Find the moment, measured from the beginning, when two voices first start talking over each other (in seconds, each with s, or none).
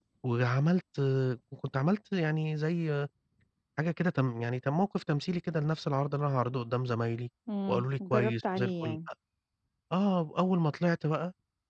7.7 s